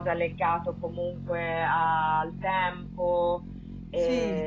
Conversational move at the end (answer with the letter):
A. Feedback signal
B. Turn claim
A